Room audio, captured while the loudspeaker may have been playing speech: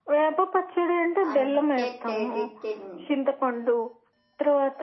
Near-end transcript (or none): అందుకే తేదితిన్